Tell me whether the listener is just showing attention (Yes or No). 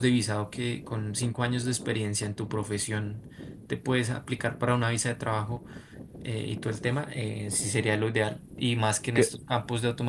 Yes